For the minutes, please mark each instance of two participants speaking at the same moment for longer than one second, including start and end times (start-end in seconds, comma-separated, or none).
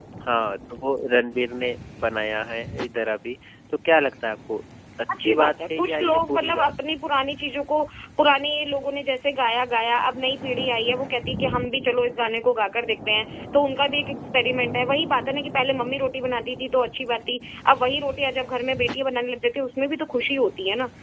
5.2-6.7